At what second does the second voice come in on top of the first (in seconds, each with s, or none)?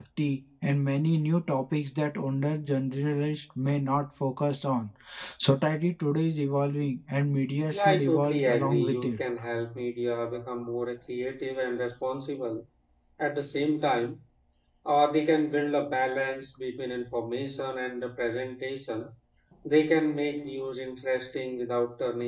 7.7 s